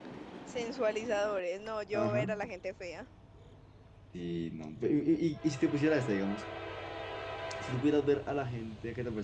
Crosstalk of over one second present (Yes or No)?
No